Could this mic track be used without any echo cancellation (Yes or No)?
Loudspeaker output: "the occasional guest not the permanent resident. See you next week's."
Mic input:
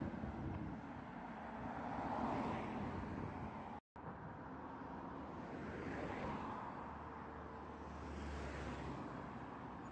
Yes